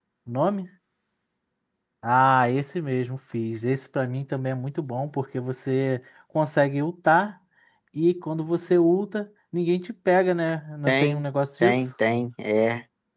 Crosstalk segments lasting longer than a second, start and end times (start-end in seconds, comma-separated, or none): none